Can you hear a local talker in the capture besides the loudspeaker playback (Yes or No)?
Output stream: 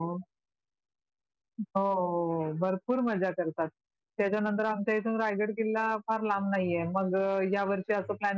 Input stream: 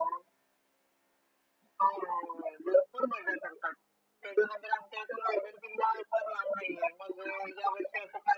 No